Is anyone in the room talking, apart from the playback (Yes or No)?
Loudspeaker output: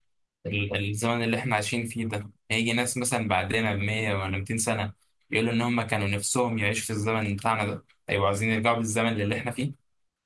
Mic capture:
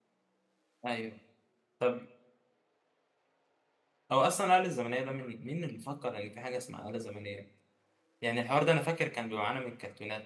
Yes